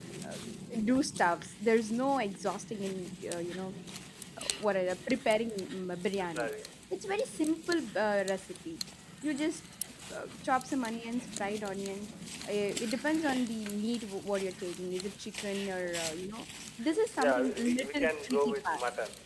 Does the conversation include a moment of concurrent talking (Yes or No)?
Yes